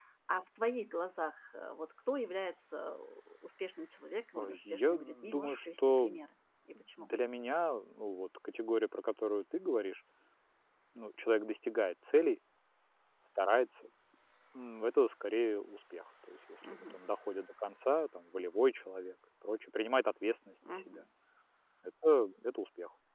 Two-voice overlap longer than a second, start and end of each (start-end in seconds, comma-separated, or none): 4.3-6.1